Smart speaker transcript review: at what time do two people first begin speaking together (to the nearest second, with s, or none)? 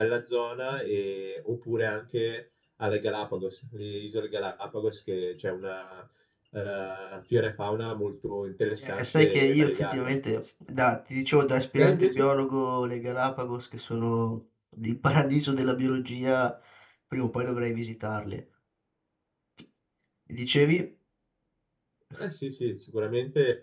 9 s